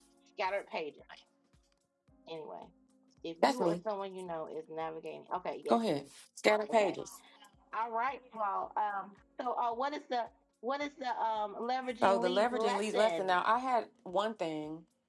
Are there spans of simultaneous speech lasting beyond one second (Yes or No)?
Yes